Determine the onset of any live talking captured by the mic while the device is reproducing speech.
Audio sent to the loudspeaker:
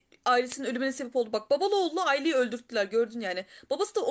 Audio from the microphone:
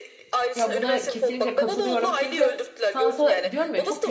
0.6 s

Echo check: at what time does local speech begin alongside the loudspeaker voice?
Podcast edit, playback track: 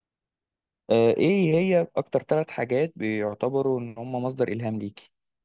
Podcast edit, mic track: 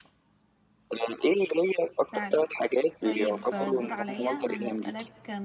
2.1 s

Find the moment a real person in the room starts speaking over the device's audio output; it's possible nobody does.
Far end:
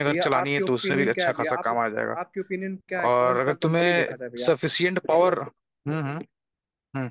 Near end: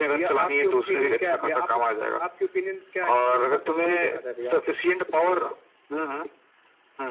none

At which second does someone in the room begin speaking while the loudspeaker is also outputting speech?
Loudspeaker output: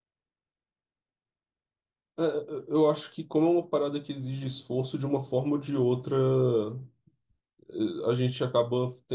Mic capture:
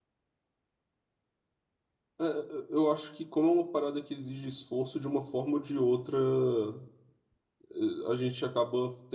none

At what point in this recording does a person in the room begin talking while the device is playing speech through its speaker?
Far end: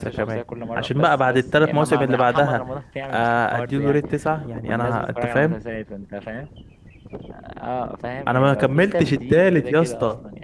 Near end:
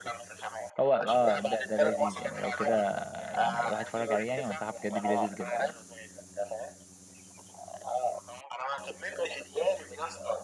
0.8 s

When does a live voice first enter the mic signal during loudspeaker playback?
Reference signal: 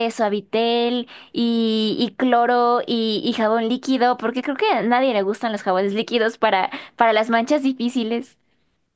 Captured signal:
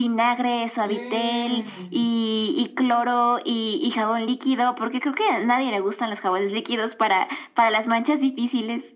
0.8 s

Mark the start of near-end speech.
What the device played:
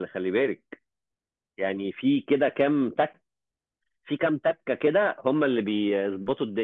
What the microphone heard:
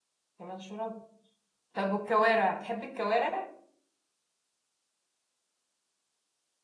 0.4 s

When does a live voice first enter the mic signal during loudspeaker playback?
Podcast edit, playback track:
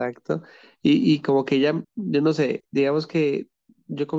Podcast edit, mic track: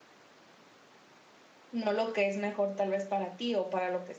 1.7 s

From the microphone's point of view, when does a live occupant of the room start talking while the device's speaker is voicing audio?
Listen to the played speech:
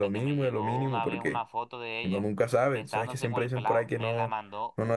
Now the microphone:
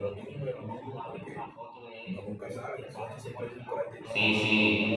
4.0 s

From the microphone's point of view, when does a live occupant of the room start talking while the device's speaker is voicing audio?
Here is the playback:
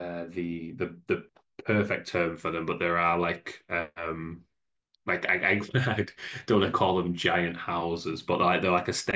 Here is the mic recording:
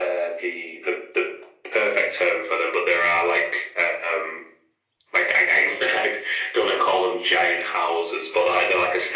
none

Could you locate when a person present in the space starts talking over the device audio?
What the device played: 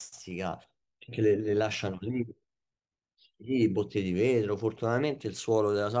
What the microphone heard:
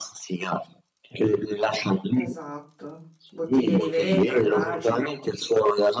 2.1 s

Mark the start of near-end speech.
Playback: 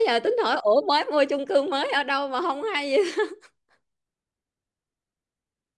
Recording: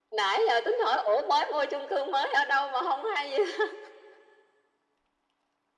none

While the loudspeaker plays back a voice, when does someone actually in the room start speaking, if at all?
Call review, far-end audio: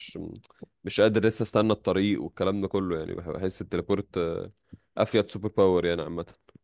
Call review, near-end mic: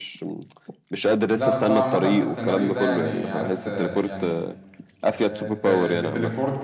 1.3 s

